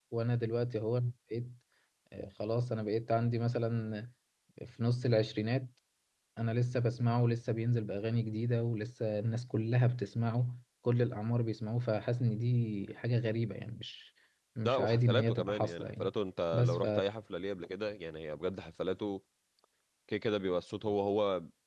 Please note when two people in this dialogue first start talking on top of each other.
14.6 s

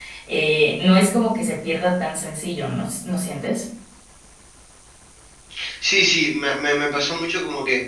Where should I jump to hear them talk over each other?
none

